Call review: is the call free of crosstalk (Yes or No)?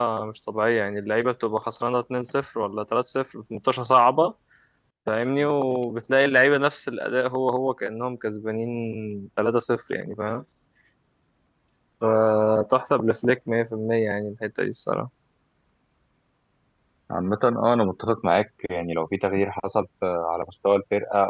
Yes